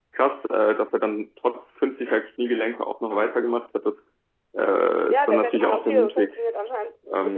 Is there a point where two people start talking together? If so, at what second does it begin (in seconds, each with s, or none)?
5.1 s